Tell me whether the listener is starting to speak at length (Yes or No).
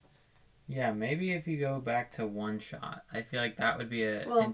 No